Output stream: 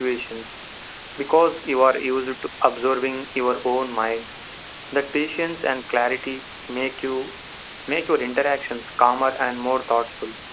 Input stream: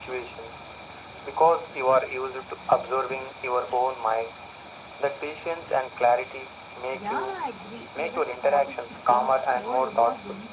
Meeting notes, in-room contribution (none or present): present